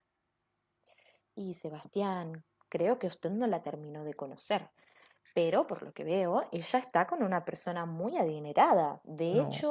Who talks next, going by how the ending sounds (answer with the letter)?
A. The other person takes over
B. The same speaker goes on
B